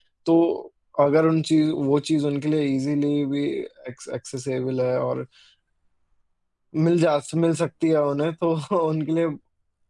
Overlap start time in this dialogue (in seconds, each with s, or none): none